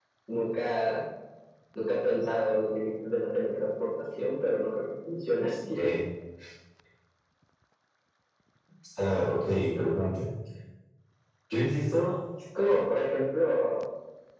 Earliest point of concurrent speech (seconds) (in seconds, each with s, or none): none